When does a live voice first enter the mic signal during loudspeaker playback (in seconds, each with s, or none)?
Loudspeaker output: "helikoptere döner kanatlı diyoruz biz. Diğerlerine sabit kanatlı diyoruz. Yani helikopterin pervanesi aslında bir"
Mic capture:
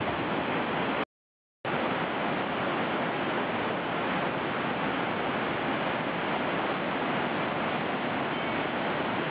none